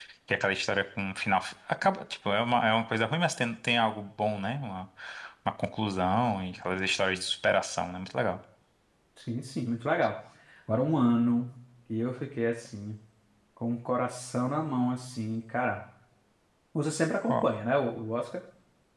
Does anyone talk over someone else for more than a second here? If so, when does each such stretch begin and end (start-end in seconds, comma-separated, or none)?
none